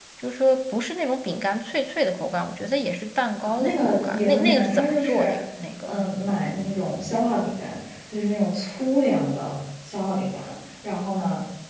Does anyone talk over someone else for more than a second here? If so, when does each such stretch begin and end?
3.4-5.3

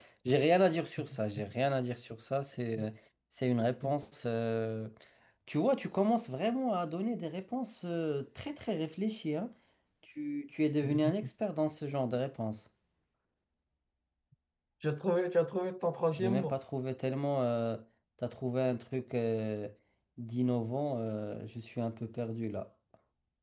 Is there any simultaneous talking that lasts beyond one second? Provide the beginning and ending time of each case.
none

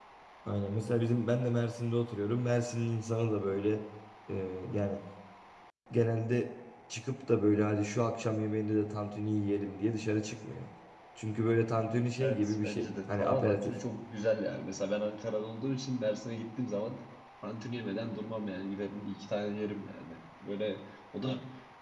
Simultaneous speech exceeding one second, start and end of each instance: 12.2-13.7

